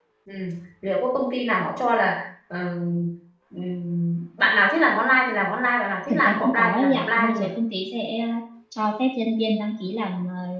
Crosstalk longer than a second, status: present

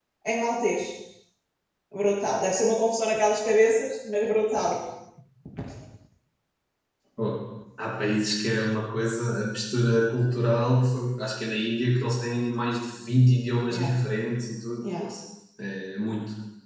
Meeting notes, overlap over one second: none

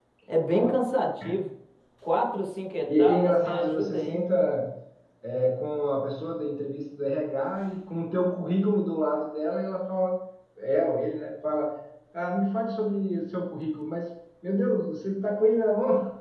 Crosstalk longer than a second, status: present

